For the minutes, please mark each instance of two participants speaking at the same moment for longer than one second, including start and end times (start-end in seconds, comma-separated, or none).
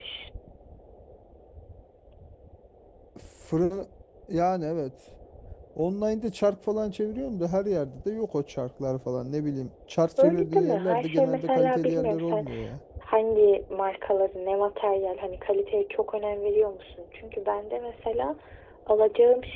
10.2-12.5